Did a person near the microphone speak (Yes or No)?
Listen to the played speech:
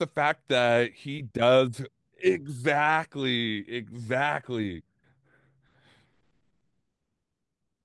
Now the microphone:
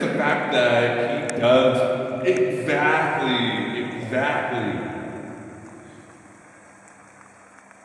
No